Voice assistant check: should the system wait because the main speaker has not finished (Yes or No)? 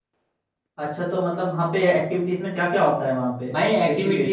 No